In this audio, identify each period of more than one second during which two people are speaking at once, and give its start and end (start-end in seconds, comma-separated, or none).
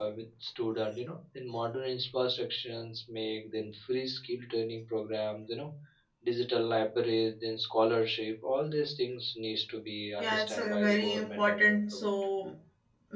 10.2-12.0